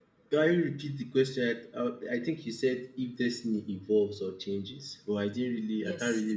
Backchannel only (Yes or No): No